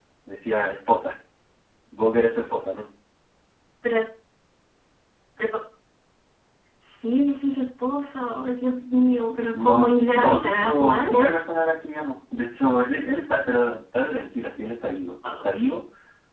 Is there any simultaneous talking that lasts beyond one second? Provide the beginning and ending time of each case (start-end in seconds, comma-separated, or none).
9.5-11.1